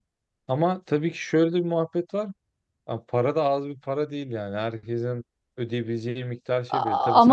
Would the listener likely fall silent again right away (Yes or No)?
No